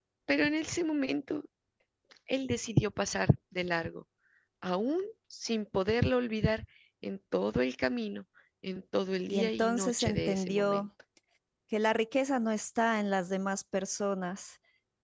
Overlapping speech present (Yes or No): Yes